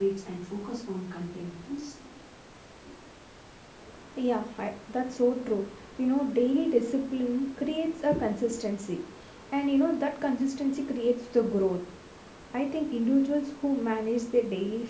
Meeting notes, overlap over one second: none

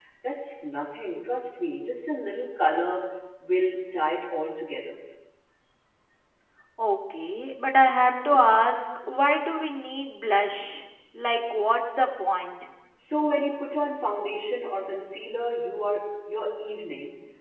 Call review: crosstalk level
none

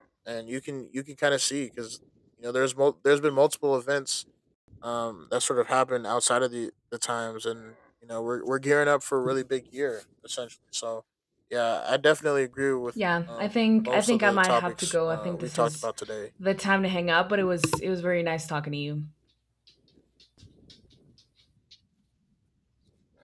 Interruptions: present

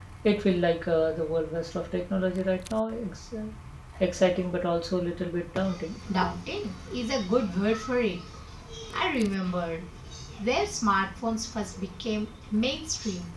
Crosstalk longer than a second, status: none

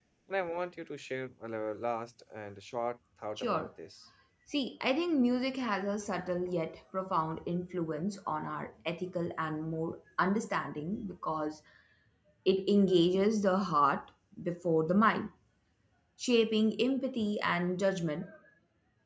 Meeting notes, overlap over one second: none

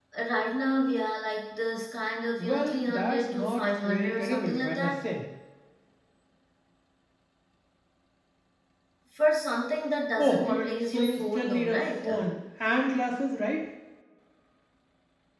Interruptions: present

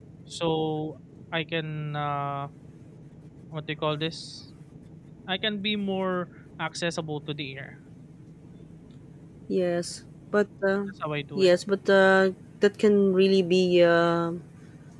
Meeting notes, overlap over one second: none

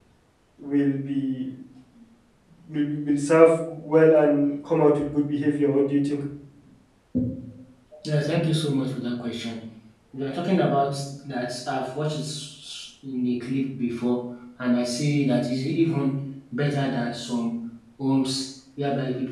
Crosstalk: none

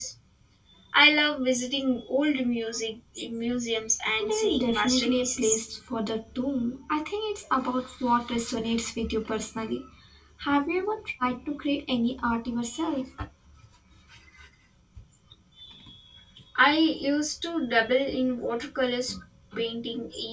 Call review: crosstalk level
present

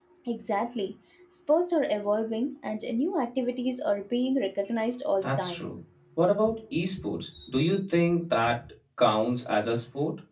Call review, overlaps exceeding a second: none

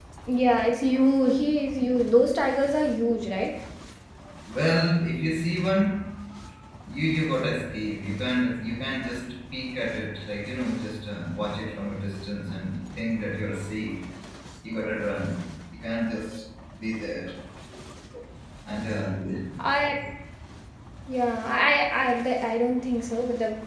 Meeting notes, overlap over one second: none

